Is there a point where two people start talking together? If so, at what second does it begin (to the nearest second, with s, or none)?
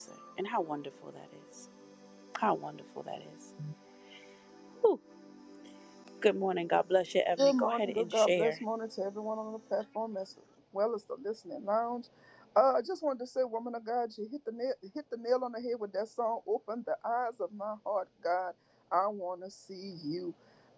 7 s